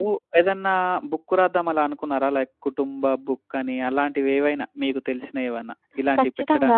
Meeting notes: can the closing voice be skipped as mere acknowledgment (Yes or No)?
No